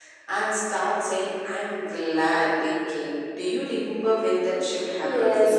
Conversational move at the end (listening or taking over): taking over